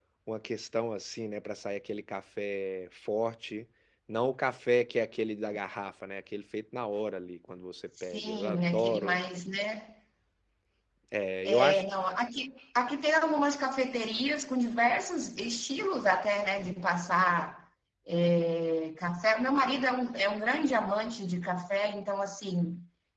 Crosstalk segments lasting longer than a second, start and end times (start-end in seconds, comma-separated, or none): 7.9-9.2